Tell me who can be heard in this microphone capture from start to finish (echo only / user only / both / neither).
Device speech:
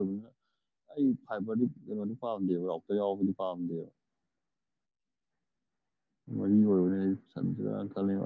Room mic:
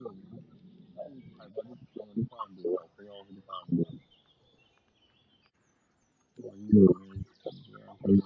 echo only